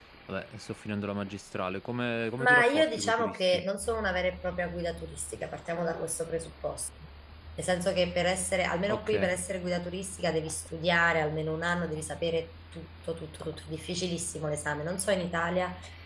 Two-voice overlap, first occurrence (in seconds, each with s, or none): 2.4 s